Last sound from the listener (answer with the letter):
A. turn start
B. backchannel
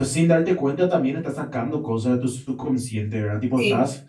B